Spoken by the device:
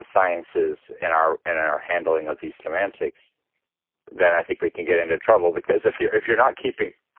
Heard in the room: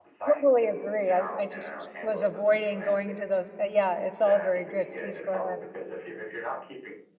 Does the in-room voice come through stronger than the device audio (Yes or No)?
Yes